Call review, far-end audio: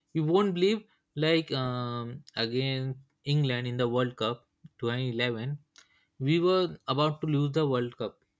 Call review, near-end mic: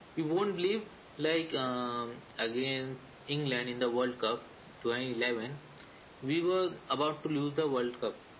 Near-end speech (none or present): none